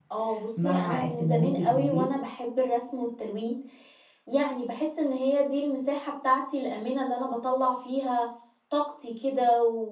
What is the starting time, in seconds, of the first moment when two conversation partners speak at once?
1 s

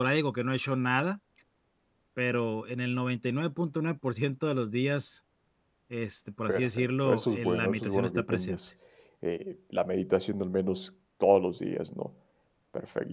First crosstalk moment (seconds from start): 7 s

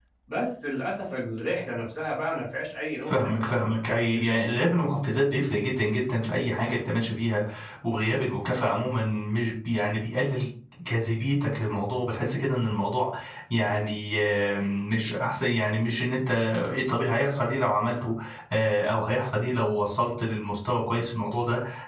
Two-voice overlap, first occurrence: 3 s

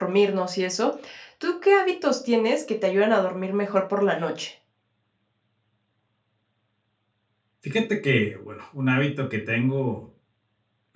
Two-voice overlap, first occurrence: none

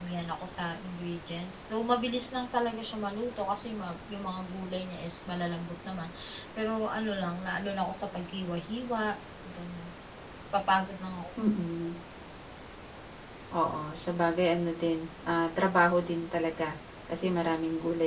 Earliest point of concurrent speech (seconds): none

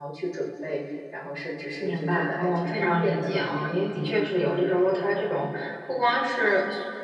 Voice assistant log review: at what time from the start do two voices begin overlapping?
2 s

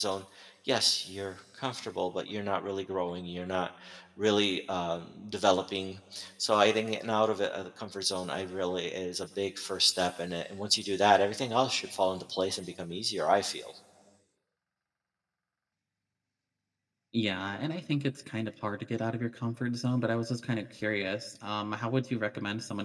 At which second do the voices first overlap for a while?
none

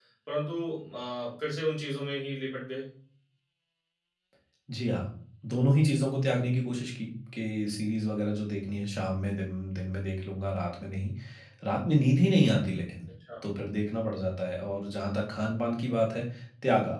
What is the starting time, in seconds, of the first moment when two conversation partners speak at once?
none

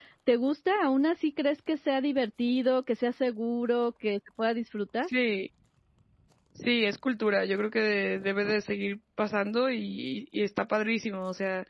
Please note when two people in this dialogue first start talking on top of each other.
none

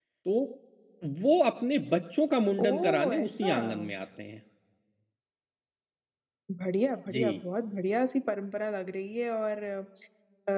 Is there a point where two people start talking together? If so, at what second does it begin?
3 s

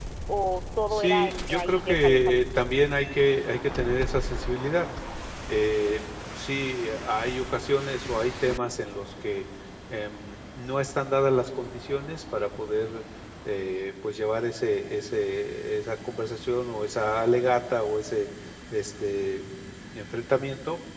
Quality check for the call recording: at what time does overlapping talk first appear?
1 s

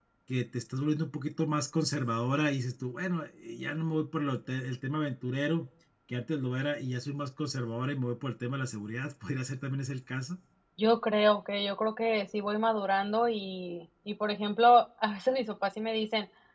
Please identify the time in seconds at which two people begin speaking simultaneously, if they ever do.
none

